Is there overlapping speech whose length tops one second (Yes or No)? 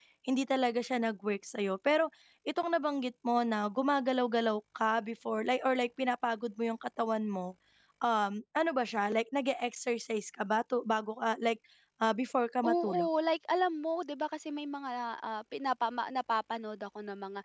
No